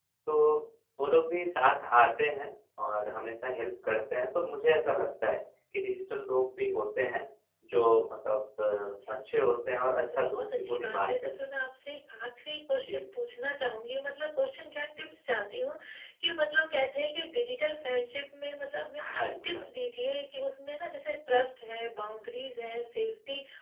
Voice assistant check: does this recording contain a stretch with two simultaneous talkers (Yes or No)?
Yes